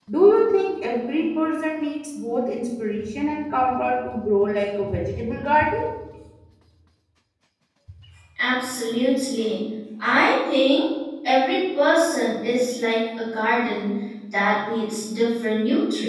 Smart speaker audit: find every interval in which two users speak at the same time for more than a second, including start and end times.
none

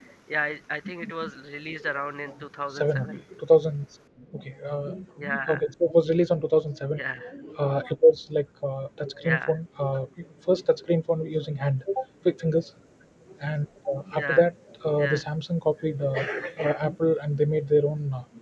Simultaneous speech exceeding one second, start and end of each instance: none

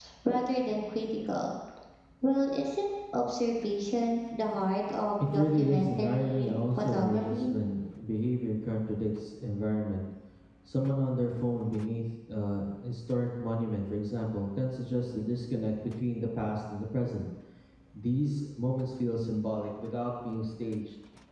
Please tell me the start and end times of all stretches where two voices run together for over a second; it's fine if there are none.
5.3-7.5

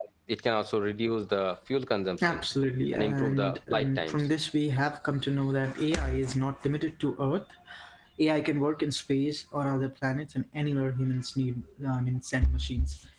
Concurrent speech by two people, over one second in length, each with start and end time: 2.9-4.3

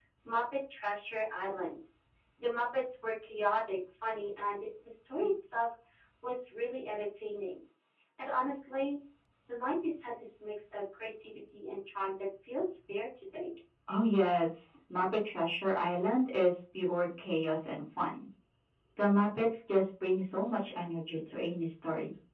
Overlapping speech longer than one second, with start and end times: none

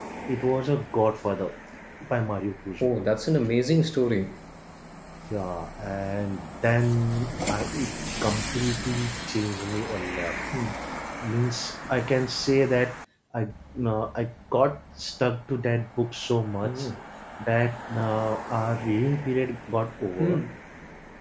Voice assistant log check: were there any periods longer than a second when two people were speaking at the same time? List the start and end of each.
none

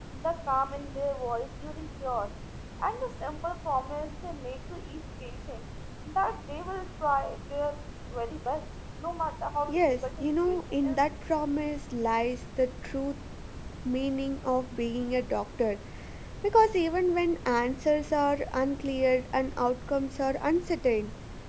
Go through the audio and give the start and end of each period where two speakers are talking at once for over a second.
9.7-11.0

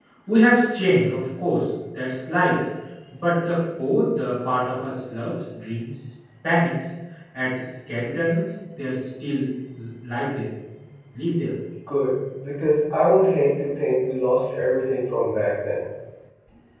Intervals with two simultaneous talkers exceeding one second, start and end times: none

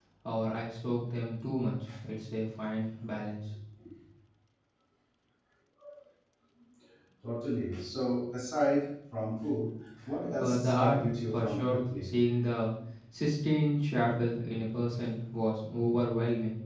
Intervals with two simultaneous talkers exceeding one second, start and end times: 10.4-12.1

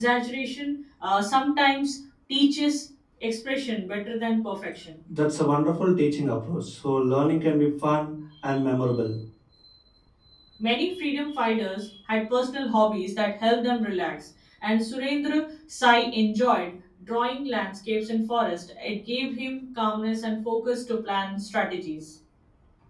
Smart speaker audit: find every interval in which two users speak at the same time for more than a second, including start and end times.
none

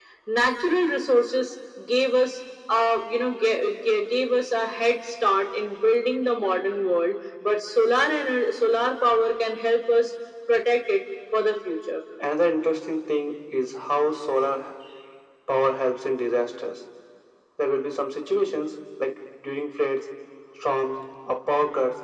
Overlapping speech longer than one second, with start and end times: none

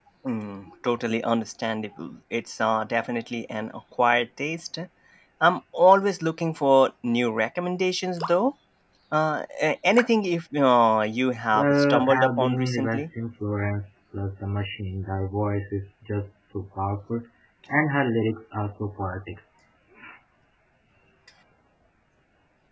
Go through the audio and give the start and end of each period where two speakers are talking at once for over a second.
11.5-13.1

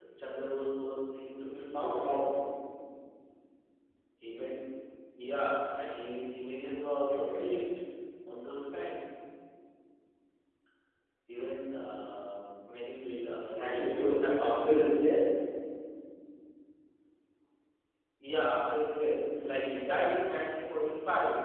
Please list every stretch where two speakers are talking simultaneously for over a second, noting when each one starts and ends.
13.6-15.1

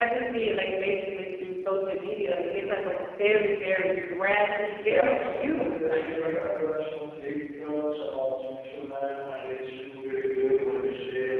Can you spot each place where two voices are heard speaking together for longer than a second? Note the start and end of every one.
4.8-6.3

